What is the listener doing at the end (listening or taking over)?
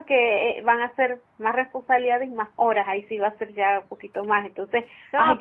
taking over